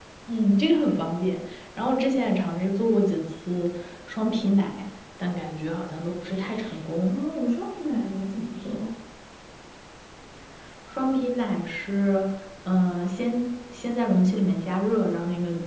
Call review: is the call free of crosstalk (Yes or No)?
Yes